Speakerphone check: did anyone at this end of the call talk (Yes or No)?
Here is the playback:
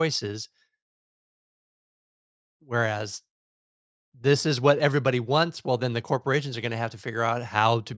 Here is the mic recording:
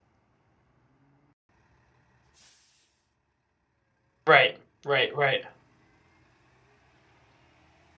Yes